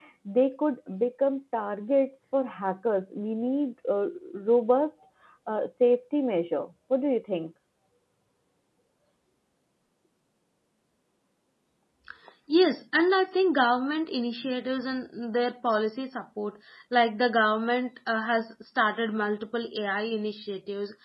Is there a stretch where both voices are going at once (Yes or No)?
No